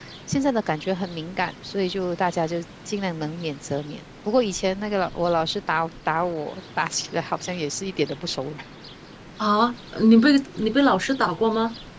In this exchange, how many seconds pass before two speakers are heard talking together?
none

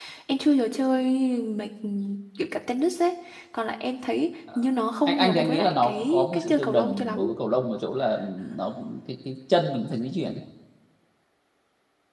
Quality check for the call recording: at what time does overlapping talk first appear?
5.1 s

